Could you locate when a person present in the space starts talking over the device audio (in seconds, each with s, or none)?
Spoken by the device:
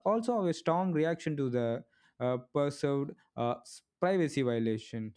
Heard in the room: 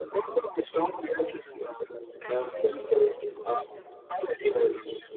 2.2 s